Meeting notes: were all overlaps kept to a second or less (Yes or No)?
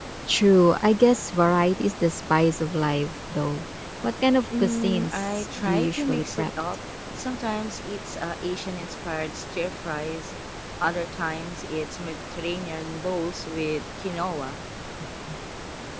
No